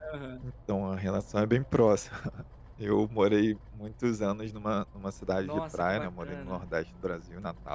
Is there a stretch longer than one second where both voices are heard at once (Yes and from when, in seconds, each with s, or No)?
Yes, from 5.4 s